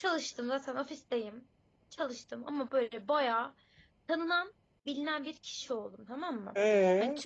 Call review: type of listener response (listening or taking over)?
listening